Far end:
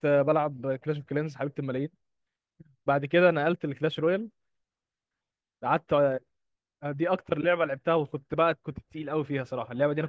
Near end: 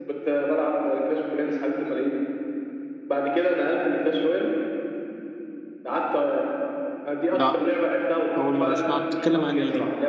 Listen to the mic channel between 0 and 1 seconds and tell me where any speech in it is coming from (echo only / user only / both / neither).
echo only